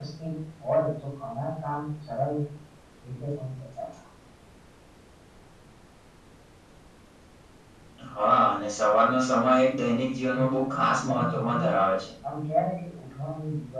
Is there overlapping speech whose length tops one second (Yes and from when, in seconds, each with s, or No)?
Yes, from 10.3 s